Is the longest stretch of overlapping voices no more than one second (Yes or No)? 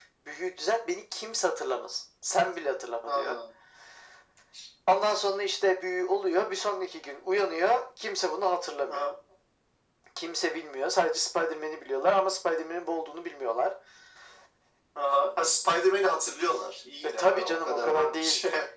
No